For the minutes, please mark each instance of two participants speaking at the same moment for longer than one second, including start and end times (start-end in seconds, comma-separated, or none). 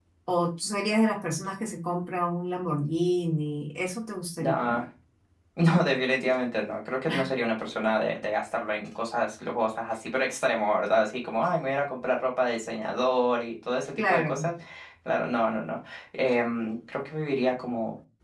none